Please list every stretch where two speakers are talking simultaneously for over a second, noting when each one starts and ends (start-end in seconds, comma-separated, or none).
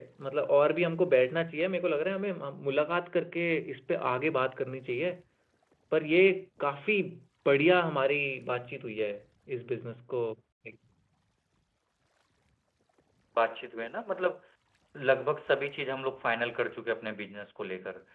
none